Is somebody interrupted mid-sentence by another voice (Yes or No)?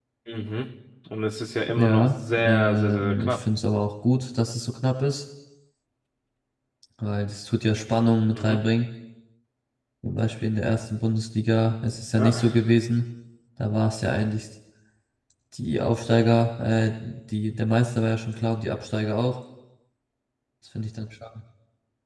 Yes